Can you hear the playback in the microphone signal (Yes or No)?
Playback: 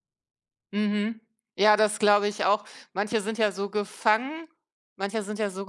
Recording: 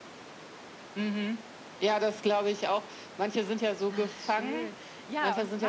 Yes